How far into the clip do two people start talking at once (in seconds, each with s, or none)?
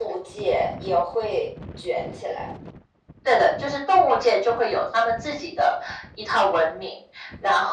none